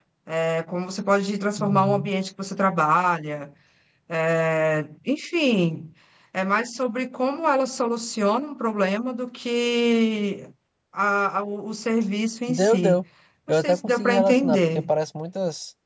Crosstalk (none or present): present